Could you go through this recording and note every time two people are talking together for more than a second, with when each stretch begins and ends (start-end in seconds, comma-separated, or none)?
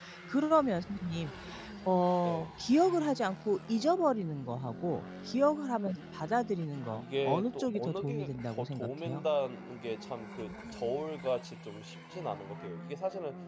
6.8-9.2